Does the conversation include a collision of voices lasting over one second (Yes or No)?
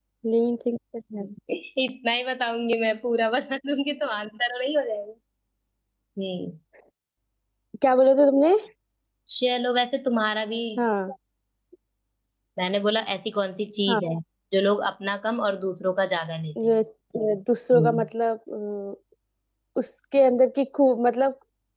No